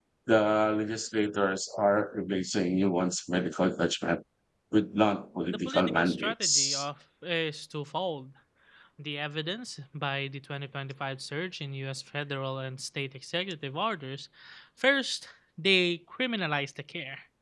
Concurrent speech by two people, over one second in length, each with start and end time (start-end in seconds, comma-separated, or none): 5.5-6.8